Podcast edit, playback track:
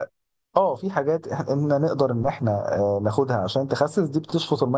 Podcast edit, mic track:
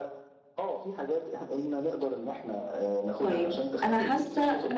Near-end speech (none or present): present